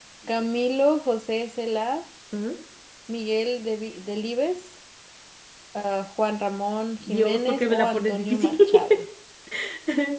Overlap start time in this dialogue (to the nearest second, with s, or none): 7 s